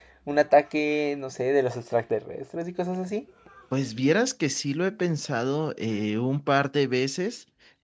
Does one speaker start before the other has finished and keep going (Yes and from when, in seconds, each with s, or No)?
No